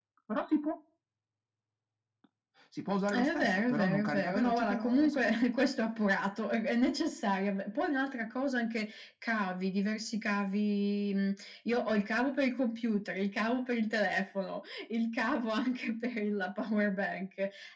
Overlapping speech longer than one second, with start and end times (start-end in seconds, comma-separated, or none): 3.1-5.3